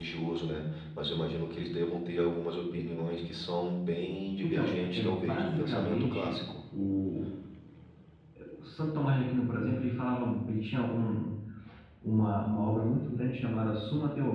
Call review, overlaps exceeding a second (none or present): present